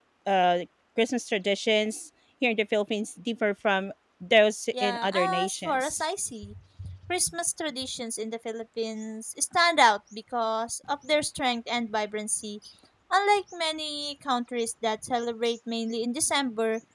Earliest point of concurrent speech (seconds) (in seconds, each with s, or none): 4.7 s